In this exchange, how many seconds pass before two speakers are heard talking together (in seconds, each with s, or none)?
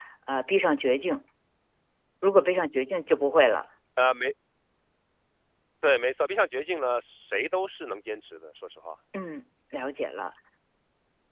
none